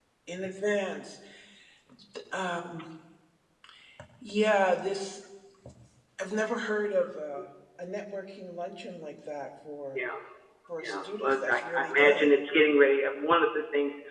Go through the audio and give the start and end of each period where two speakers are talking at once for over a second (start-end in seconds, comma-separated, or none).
10.8-12.3